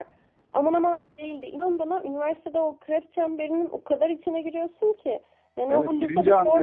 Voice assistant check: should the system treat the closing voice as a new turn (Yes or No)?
Yes